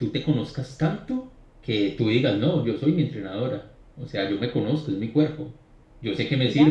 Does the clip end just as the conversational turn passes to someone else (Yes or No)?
No